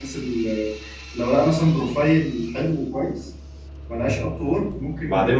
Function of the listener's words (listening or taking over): taking over